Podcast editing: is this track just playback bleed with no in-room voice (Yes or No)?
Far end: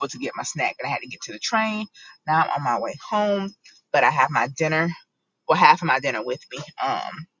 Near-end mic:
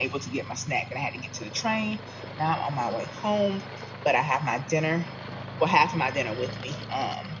Yes